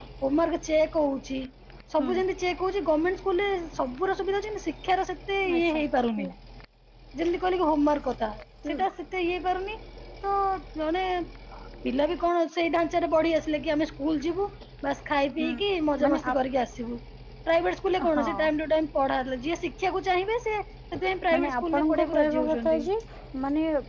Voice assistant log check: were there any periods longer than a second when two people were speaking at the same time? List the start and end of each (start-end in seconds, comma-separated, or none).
21.3-22.8